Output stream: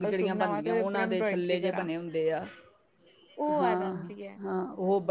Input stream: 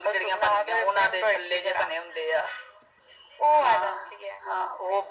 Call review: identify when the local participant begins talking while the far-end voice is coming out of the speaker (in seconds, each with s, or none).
none